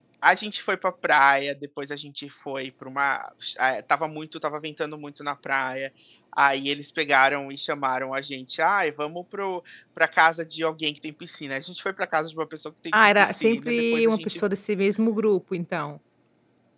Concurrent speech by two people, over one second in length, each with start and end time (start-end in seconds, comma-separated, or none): 13.2-14.4